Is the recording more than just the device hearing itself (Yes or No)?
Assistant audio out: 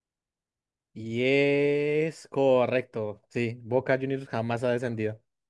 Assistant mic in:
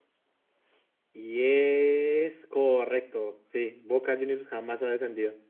No